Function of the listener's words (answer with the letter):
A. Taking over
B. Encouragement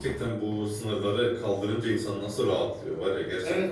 A